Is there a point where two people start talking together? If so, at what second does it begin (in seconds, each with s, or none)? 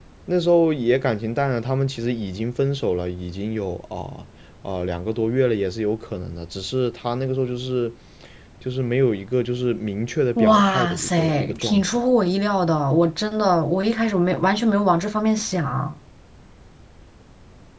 10.4 s